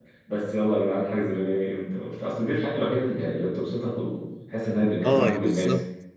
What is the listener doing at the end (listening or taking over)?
taking over